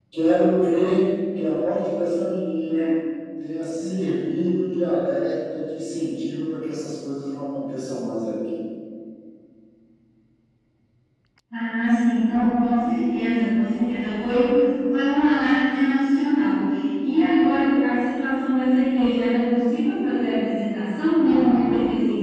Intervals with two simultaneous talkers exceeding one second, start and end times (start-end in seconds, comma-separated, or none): none